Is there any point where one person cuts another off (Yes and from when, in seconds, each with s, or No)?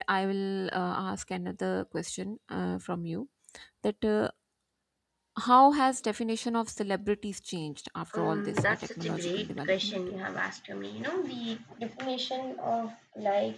Yes, from 8.1 s